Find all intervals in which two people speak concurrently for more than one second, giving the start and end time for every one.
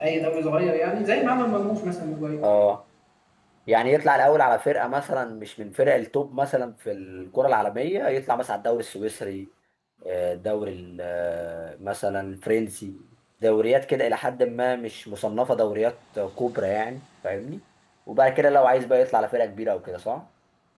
none

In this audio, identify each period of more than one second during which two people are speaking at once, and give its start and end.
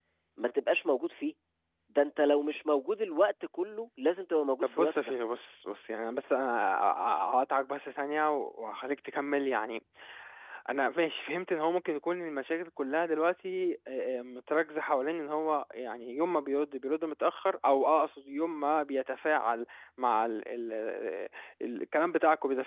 none

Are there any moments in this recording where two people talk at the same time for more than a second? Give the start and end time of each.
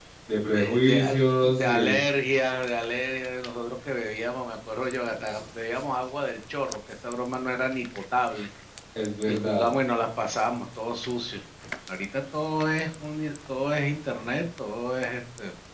0.5-2.0

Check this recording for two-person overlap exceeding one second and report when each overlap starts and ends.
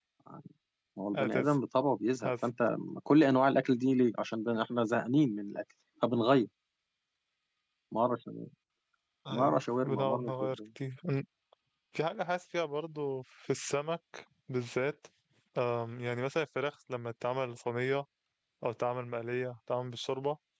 9.4-10.6

